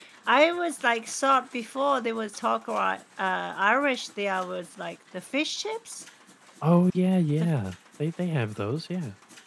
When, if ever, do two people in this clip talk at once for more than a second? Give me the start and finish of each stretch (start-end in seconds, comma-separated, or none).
none